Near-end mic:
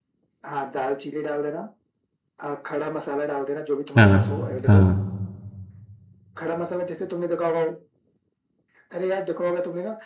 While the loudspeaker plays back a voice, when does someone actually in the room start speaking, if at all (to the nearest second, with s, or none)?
4 s